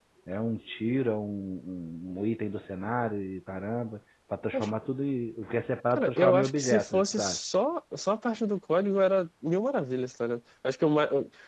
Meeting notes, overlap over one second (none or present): present